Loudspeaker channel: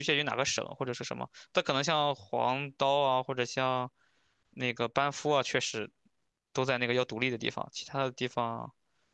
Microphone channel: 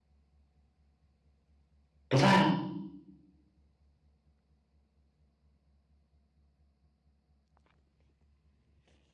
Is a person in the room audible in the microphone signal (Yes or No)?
Yes